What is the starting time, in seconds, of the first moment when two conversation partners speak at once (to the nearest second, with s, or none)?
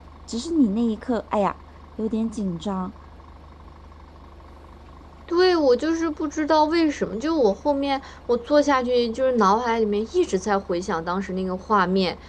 none